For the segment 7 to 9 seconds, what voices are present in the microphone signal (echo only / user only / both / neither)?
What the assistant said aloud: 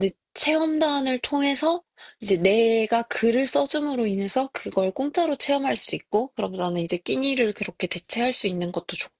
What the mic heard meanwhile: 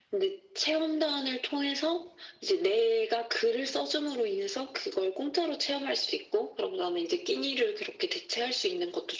echo only